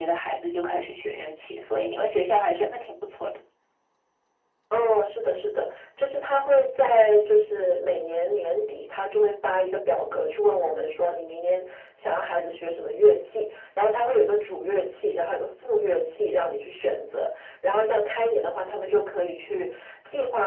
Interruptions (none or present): none